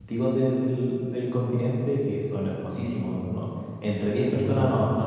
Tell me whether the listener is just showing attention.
Yes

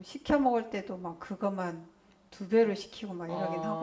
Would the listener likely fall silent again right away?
No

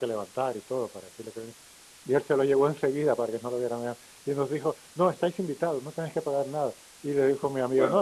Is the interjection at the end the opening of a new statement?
No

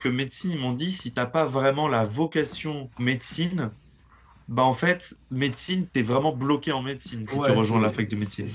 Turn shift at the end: Yes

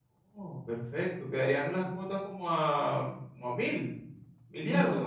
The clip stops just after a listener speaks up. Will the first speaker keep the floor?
No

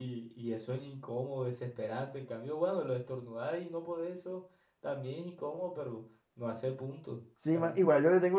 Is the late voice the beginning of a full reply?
Yes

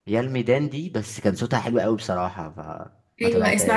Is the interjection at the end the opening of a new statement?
Yes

